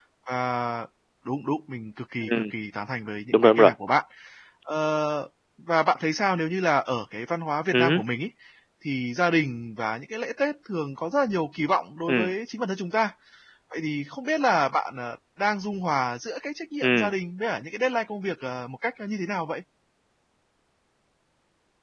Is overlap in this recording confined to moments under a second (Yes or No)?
Yes